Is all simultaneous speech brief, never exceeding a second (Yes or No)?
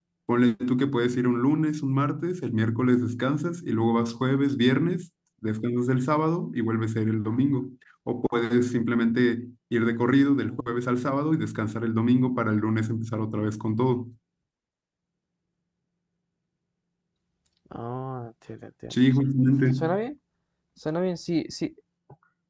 Yes